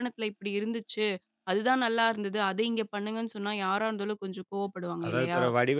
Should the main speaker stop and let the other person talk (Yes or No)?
Yes